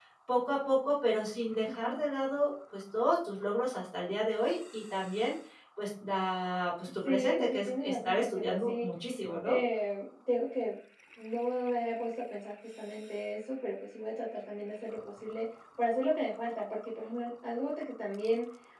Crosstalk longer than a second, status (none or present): present